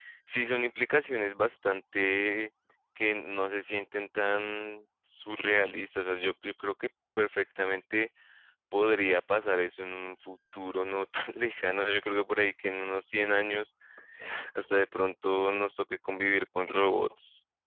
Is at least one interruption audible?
No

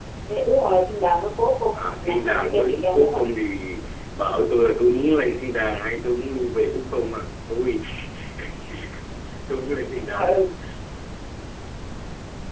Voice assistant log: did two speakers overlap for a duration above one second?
Yes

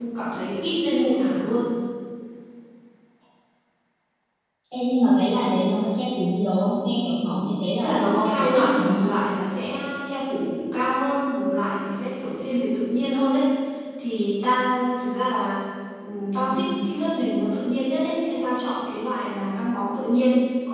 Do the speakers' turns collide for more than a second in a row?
Yes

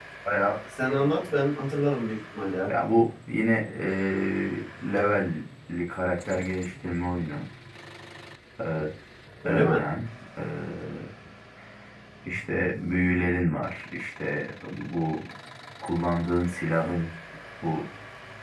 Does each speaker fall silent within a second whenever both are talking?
Yes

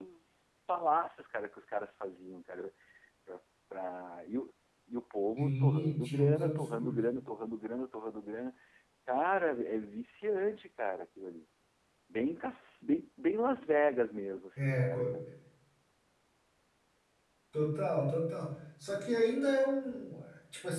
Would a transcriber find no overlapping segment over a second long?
No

